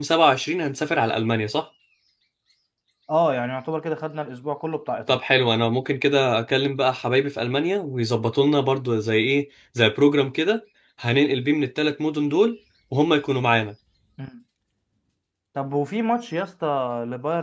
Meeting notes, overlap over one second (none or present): none